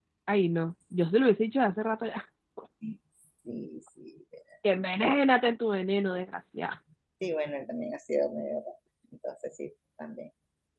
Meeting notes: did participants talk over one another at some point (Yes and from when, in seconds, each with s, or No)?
No